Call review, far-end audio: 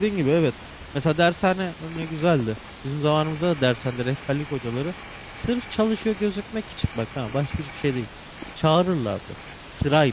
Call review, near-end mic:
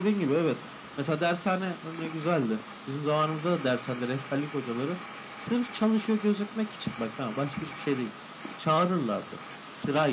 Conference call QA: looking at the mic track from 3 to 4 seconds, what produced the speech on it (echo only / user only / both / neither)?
echo only